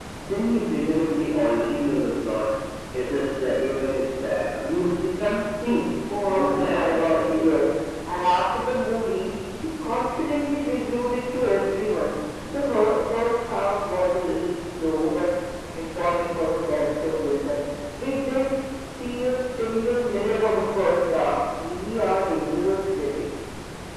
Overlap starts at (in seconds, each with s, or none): 6.1 s